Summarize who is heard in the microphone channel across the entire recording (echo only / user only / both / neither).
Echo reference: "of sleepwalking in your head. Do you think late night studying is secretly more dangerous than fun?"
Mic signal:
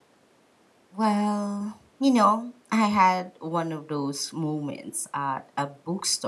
user only